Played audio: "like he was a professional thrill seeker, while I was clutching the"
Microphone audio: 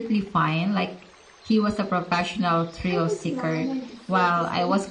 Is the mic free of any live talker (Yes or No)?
No